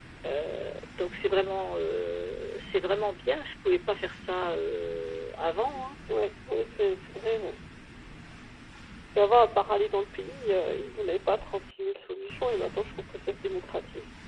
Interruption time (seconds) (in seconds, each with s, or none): none